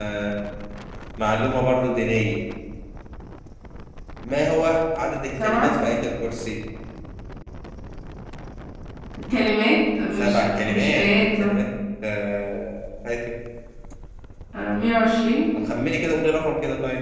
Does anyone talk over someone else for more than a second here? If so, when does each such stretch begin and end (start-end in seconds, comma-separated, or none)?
10.1-11.5